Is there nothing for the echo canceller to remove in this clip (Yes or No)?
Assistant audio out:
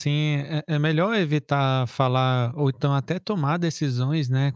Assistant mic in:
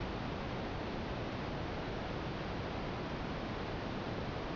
Yes